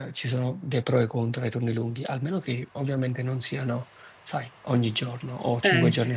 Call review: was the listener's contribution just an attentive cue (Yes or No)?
No